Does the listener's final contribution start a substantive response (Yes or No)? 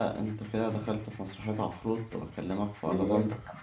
No